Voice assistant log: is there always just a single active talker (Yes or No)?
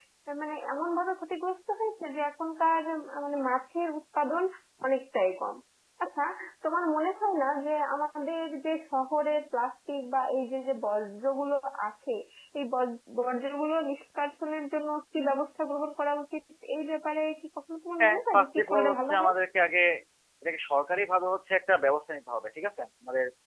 No